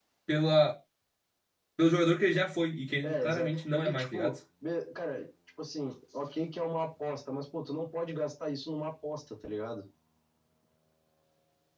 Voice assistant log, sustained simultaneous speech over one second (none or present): present